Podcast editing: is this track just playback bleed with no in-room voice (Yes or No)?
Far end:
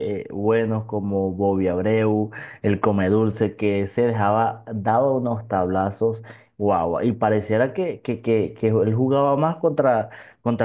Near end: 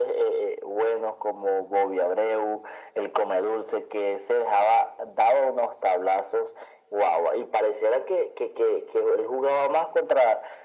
Yes